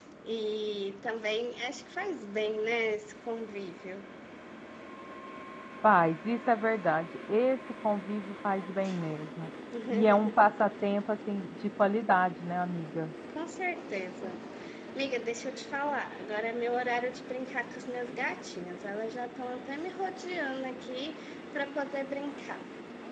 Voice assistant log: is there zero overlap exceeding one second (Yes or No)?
Yes